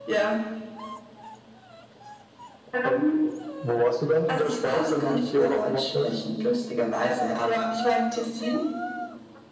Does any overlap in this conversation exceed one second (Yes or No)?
Yes